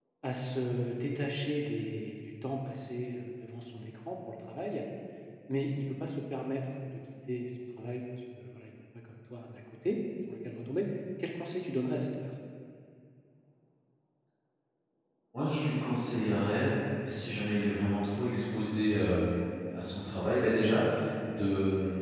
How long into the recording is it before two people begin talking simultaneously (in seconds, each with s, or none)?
none